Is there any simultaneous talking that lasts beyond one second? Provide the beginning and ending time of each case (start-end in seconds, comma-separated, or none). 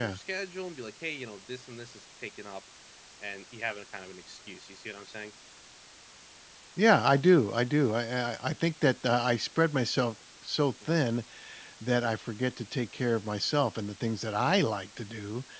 none